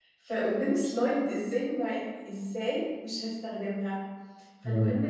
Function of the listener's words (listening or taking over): listening